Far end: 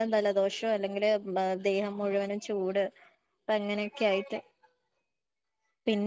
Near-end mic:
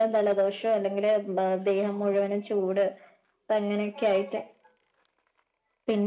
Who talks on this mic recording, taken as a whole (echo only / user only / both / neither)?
echo only